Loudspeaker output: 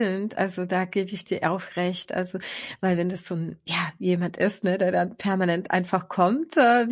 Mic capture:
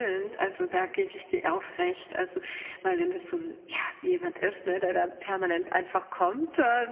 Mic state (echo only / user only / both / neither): echo only